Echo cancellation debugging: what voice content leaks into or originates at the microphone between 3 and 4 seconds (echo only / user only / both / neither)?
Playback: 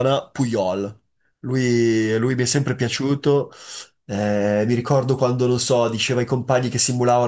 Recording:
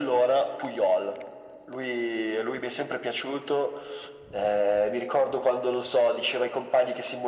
echo only